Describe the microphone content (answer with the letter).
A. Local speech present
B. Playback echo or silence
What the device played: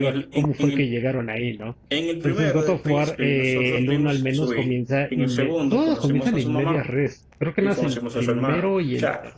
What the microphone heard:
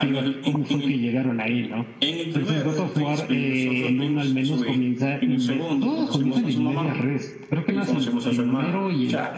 A